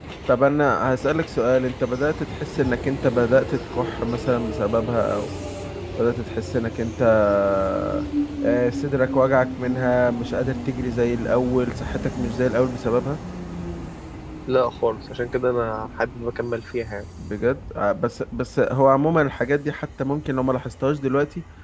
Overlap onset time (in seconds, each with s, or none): none